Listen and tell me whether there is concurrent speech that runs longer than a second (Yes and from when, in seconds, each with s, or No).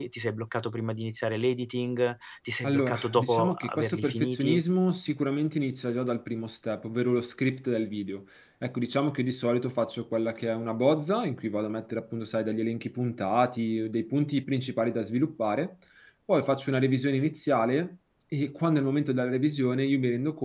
Yes, from 2.6 s